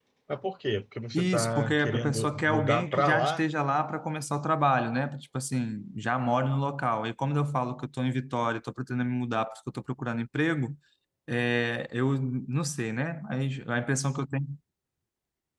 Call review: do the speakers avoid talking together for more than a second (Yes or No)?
No